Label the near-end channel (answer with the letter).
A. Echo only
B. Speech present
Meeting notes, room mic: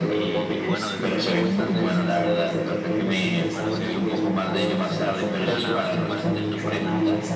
B